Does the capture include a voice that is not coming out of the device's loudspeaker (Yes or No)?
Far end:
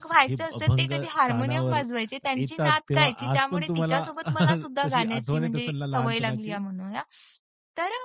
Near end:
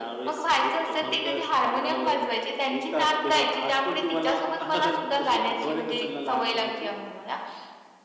No